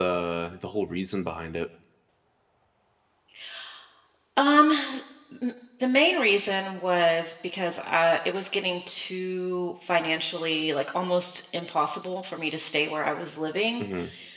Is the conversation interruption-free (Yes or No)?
Yes